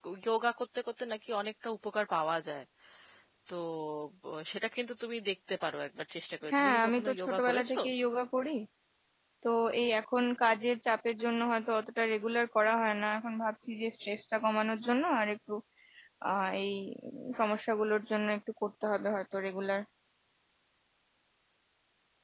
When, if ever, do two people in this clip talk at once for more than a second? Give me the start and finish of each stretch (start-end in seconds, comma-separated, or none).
6.5-7.8